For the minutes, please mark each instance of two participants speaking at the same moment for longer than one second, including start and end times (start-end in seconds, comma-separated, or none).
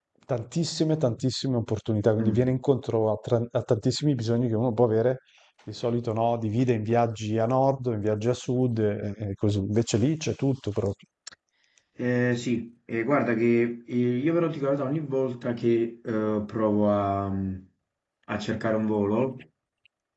none